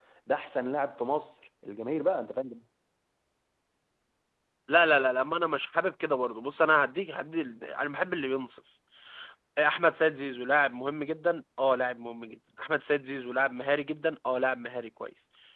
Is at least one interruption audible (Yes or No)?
No